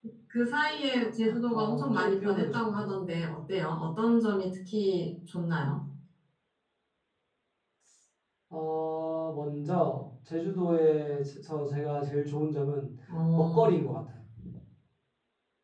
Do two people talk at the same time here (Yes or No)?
Yes